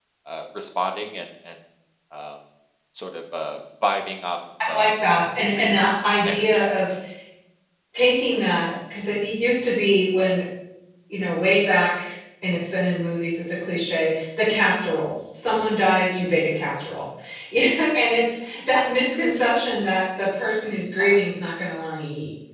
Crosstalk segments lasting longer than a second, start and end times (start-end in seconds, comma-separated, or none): 5.6-6.8